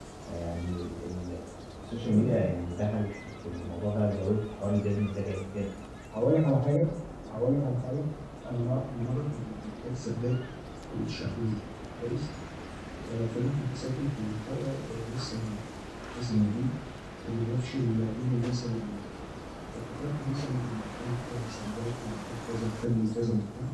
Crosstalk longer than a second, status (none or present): none